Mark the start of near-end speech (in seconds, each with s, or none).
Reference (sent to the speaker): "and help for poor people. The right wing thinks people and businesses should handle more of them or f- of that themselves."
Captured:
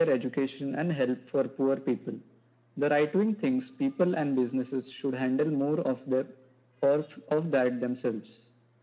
none